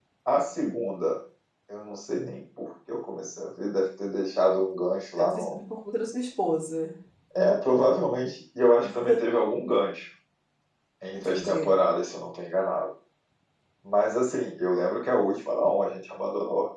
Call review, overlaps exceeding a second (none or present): none